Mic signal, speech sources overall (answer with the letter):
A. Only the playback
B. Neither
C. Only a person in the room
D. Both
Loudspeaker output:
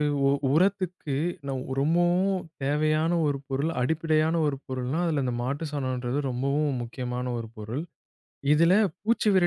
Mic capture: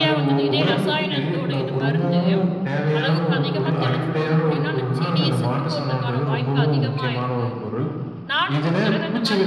D